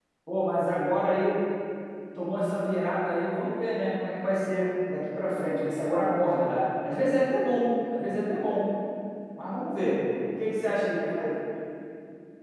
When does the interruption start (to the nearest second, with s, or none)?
none